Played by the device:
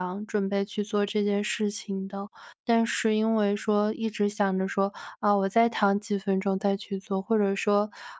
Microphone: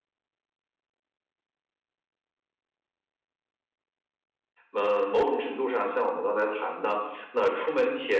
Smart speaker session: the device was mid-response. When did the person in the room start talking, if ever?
5 s

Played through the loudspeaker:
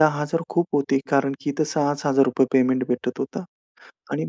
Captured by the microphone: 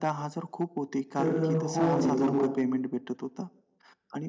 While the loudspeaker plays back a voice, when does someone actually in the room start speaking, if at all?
1 s

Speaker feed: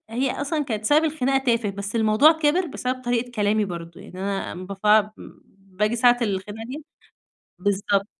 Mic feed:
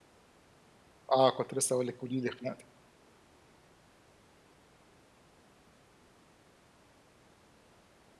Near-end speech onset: 1 s

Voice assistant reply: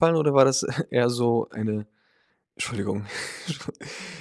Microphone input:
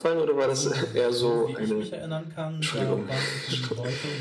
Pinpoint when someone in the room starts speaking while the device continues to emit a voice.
0 s

